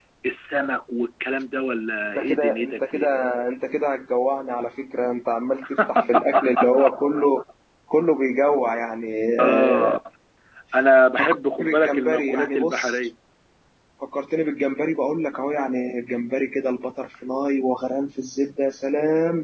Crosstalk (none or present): present